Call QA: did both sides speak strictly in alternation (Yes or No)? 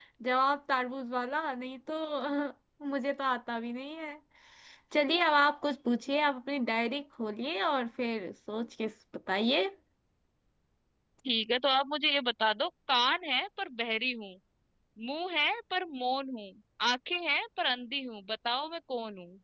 Yes